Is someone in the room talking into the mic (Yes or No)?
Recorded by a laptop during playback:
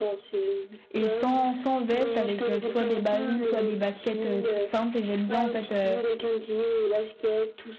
Yes